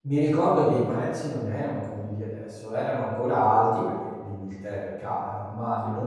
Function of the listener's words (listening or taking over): listening